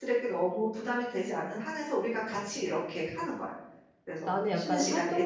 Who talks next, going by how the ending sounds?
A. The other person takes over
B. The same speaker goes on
A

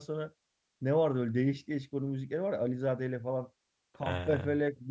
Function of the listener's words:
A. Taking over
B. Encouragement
B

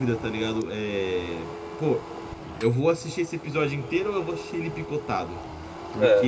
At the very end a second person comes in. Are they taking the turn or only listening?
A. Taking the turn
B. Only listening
B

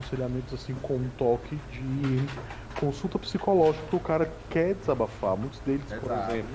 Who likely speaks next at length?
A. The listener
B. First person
A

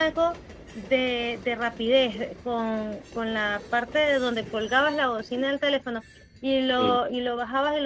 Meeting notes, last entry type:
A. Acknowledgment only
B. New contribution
A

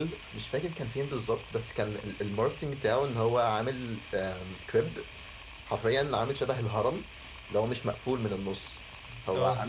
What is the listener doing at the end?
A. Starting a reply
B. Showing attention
B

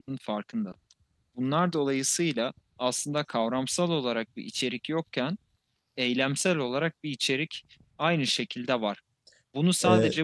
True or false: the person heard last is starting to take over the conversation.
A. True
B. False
B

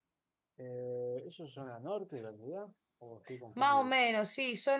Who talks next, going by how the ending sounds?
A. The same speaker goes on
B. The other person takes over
B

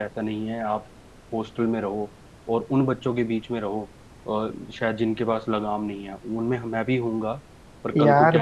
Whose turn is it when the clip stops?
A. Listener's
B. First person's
A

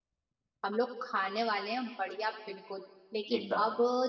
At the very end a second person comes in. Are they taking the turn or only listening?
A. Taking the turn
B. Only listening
B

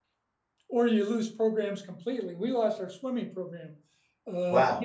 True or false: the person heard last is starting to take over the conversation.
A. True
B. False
B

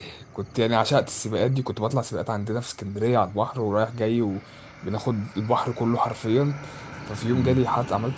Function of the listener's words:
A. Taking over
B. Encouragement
B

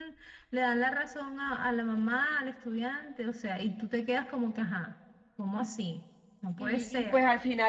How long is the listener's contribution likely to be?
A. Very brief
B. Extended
B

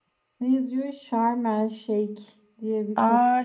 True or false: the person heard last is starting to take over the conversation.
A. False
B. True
B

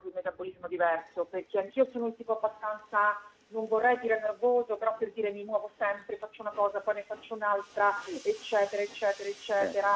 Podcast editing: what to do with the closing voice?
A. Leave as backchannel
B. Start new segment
A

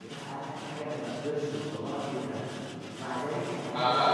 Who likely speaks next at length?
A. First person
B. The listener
B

